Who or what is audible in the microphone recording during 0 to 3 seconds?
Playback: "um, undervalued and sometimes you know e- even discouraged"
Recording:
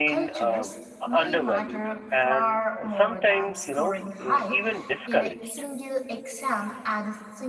both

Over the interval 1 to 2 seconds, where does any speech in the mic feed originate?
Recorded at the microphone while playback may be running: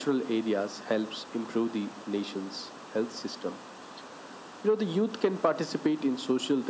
echo only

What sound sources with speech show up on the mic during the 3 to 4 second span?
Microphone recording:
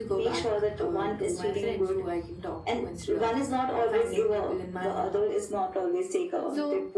echo only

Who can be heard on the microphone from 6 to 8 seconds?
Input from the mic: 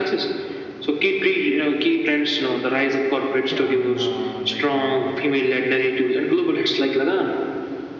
echo only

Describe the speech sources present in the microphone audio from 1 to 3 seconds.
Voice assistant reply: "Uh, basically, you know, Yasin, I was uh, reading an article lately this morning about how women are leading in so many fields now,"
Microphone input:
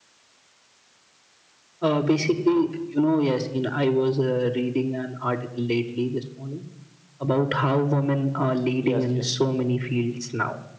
echo only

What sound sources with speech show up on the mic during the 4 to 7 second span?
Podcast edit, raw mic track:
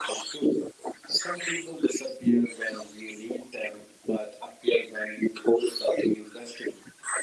echo only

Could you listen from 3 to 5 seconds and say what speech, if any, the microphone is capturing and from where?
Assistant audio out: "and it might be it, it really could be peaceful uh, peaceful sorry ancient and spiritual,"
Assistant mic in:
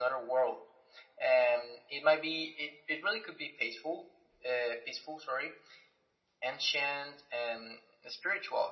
echo only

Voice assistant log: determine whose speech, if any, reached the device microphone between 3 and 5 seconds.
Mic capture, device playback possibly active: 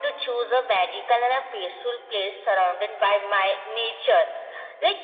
echo only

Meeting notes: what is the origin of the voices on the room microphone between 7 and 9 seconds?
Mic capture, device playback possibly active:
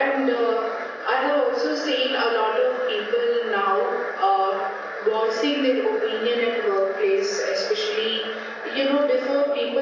echo only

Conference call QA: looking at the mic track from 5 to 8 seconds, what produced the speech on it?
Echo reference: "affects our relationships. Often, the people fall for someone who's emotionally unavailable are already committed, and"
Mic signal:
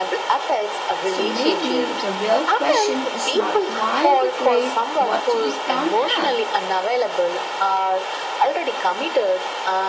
both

